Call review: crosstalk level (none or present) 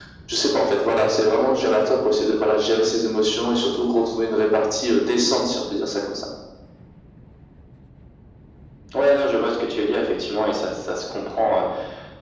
none